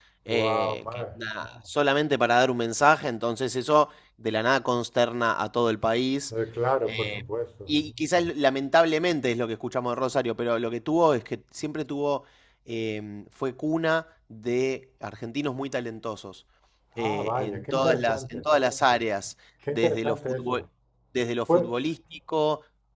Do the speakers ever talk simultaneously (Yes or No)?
Yes